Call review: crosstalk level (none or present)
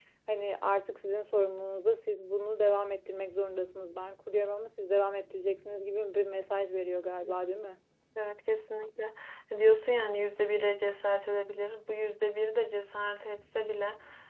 none